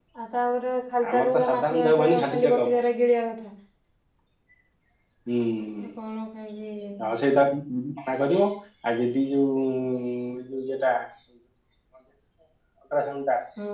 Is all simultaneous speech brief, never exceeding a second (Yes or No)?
No